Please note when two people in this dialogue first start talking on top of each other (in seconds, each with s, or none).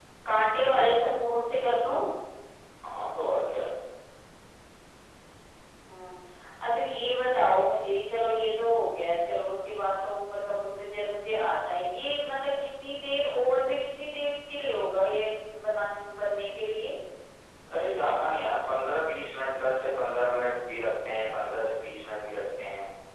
none